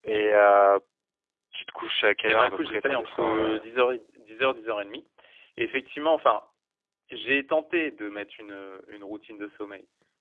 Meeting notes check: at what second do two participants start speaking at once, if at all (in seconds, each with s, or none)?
2.3 s